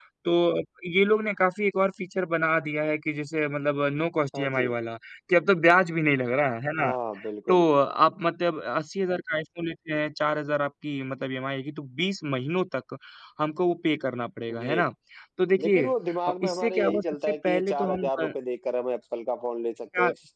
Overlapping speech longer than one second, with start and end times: 16.3-18.3

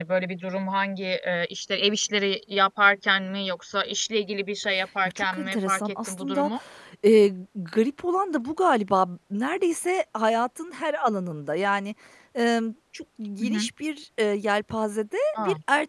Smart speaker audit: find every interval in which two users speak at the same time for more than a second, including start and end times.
5.0-6.5

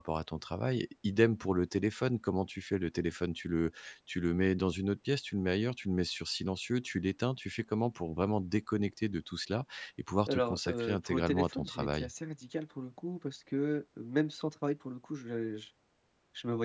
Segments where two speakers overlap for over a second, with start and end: 10.3-12.1

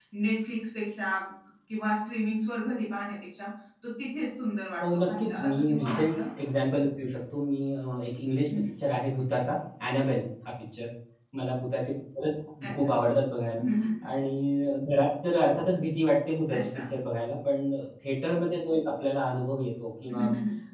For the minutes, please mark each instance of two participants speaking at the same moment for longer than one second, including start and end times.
4.8-6.3

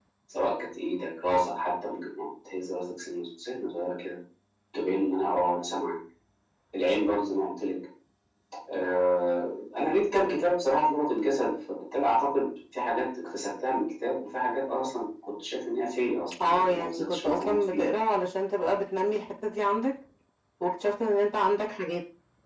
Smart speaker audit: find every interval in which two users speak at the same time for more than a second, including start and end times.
16.4-18.0

